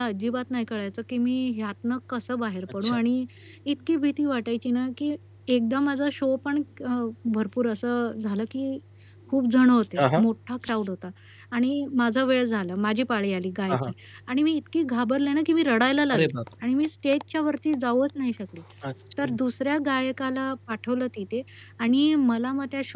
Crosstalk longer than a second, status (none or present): none